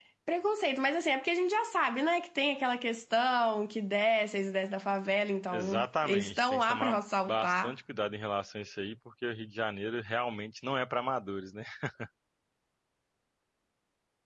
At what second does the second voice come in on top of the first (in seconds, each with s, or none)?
5.5 s